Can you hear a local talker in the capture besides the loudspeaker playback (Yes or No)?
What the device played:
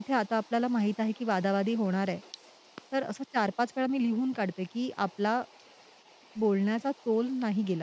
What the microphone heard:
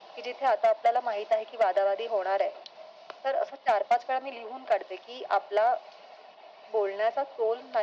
No